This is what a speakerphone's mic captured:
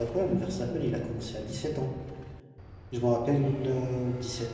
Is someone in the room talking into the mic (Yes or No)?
Yes